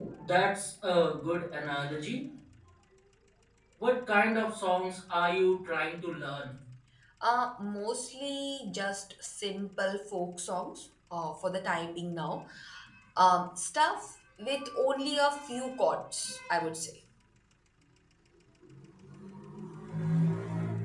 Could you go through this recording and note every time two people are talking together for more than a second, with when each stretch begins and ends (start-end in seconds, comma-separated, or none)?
none